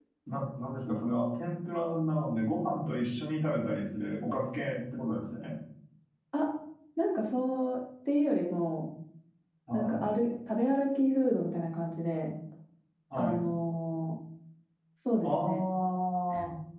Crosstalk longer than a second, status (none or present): none